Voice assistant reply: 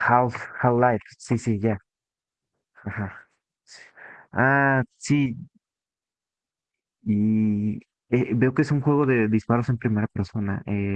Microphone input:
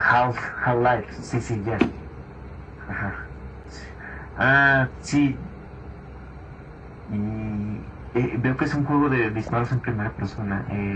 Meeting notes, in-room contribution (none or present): none